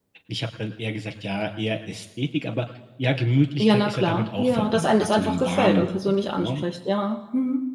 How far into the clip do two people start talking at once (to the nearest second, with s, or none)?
4 s